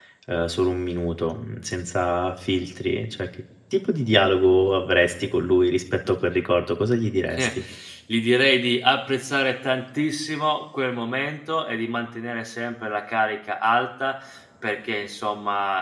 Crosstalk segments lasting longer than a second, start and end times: none

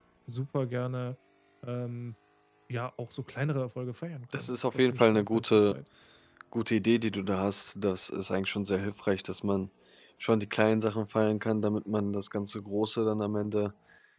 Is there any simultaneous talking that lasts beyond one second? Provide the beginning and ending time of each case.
4.3-5.7

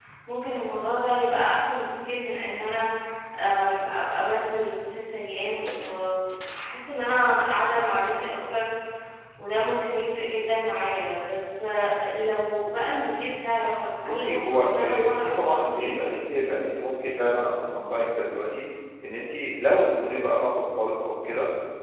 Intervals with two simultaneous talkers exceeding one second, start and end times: 14.0-16.0

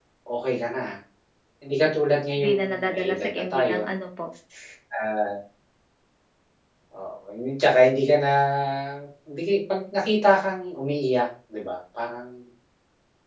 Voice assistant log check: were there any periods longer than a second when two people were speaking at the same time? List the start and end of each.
2.4-3.9

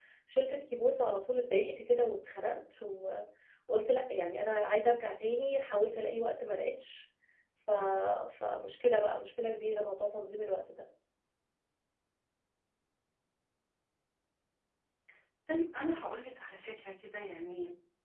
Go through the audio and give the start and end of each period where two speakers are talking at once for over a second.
none

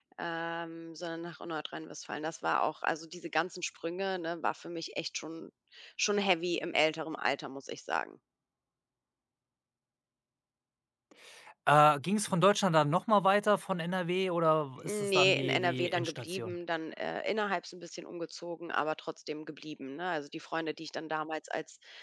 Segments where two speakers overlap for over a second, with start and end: 14.8-16.6

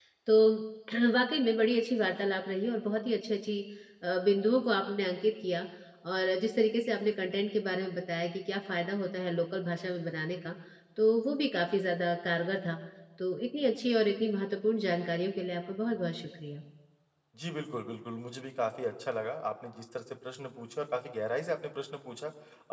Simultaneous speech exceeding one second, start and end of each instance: none

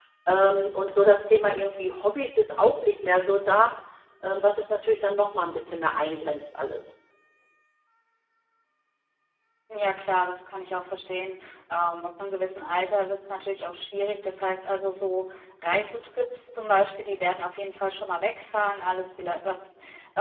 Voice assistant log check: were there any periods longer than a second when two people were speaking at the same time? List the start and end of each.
none

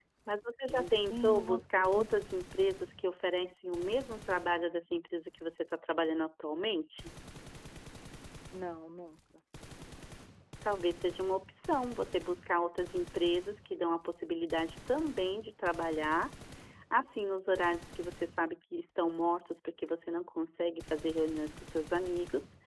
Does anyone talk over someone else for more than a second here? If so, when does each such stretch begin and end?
0.7-2.0

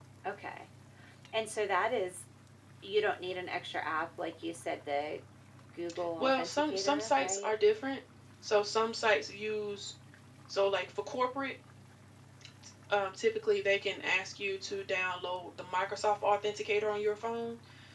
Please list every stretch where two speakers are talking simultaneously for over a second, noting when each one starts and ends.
6.2-7.5

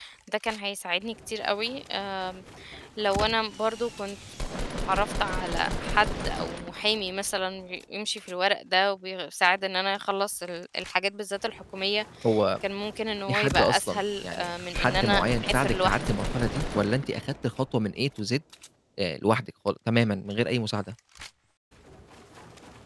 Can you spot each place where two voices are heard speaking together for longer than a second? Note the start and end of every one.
13.3-16.2

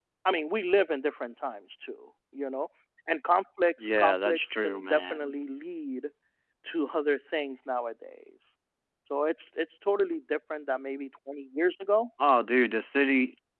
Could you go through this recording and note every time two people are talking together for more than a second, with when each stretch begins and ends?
3.8-5.3

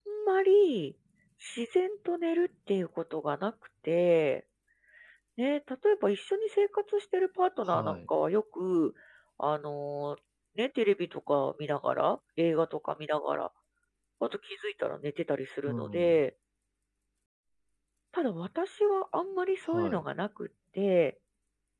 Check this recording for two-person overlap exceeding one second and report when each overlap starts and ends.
none

